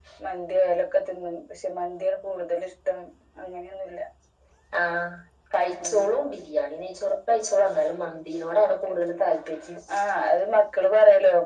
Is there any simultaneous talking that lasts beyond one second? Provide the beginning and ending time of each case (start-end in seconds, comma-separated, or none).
none